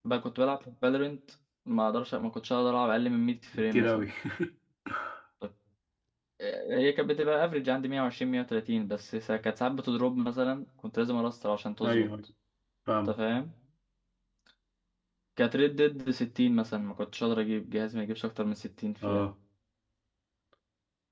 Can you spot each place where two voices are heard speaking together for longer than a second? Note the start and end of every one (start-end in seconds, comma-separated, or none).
none